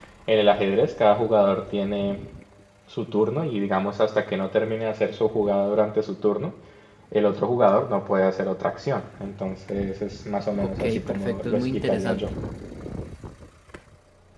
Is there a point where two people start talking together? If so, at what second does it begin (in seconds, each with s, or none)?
10.6 s